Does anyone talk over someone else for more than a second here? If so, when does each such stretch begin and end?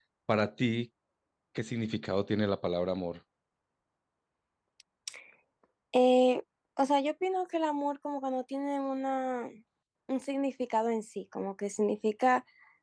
none

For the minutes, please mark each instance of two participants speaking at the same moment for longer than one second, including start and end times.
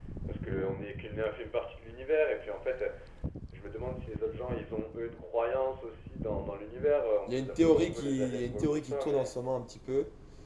7.3-9.2

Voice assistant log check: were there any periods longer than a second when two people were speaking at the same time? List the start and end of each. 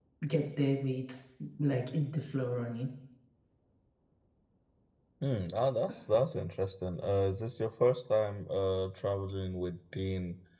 none

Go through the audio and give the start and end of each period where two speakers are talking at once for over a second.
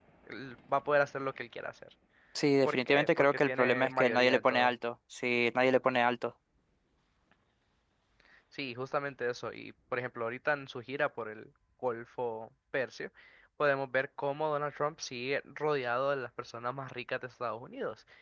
2.6-4.7

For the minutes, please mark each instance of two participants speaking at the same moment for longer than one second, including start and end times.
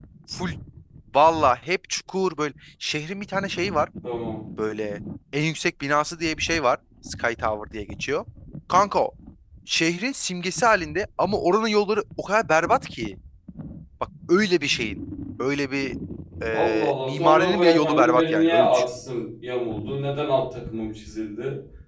16.5-18.8

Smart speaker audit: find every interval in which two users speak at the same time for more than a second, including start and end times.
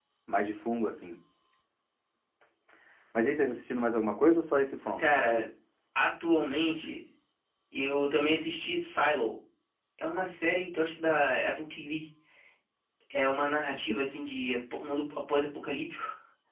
none

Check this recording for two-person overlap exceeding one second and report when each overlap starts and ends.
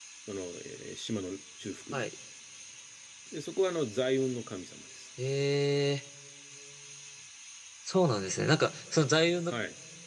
none

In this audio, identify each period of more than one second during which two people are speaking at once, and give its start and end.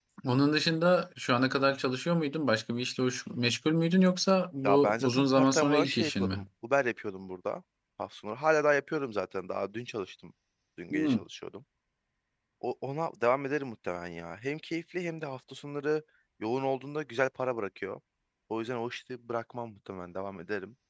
4.6-6.4

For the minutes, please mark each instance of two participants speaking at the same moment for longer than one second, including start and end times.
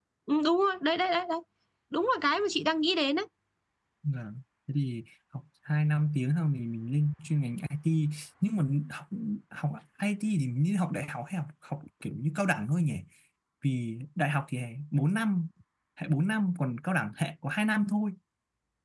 none

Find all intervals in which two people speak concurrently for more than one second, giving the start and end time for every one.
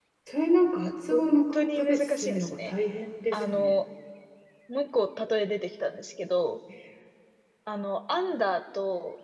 1.1-2.7

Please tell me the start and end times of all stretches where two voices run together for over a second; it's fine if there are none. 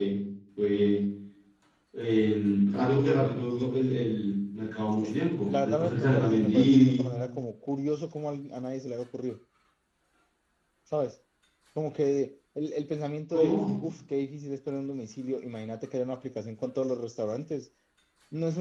5.0-7.1

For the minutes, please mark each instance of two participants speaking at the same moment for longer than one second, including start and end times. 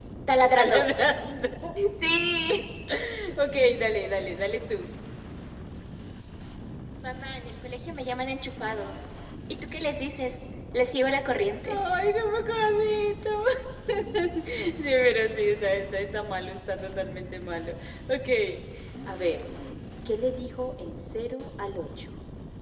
none

